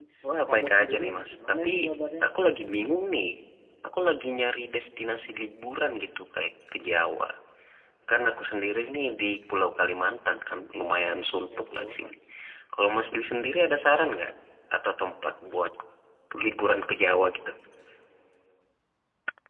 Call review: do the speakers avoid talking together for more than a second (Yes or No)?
No